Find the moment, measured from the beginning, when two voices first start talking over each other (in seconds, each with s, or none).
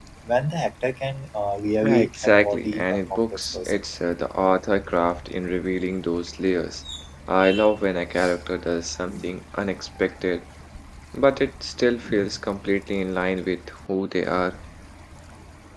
1.8 s